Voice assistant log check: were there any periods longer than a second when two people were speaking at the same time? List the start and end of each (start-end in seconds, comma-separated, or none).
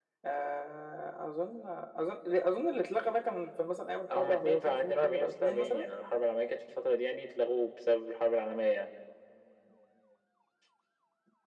4.2-5.8